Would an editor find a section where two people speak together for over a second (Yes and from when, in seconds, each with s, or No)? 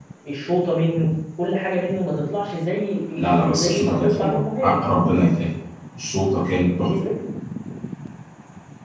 Yes, from 3.4 s